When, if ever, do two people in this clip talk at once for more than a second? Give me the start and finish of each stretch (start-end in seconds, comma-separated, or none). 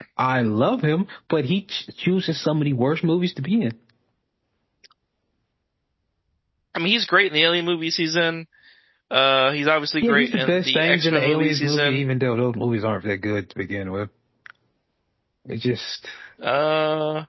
10.0-12.0